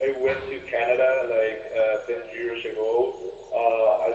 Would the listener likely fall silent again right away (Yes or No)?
Yes